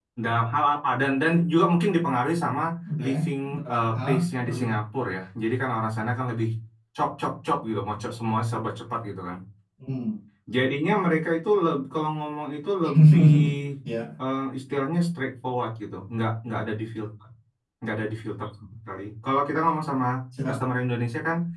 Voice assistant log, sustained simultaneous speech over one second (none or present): present